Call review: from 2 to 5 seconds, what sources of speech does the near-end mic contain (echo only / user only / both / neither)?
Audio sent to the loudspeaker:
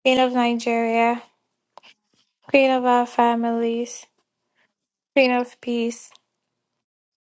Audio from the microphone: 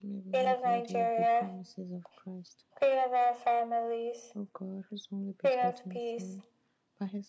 both